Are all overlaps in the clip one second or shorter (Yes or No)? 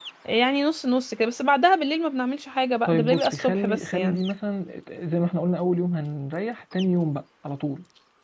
No